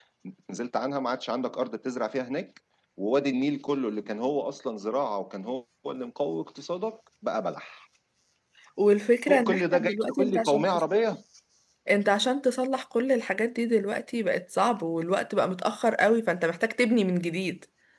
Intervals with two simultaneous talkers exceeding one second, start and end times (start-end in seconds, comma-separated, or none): 9.3-10.8